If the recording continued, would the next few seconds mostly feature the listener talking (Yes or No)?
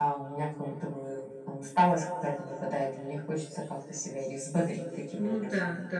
Yes